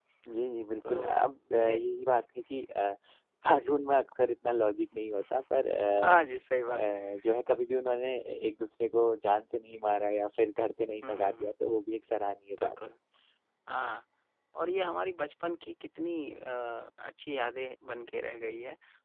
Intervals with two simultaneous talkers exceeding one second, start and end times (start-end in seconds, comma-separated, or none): none